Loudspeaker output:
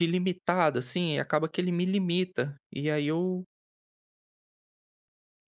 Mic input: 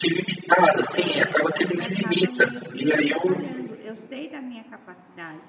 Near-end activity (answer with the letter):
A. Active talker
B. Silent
A